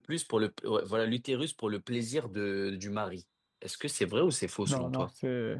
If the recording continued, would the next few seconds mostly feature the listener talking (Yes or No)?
Yes